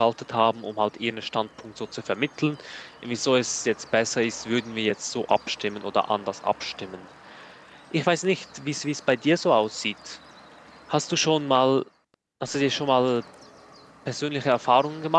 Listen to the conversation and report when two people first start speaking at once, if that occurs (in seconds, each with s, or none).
none